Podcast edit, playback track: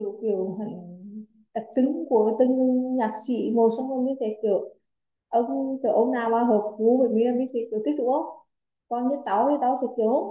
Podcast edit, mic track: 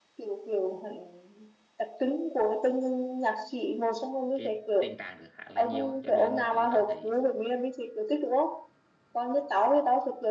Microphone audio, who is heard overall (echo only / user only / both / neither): both